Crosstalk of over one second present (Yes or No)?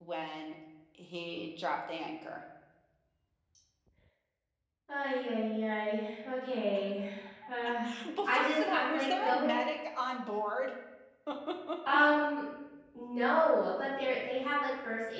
Yes